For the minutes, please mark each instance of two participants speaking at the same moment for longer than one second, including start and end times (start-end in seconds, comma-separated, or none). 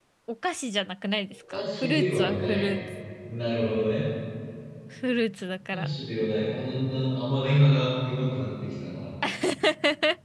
1.5-2.7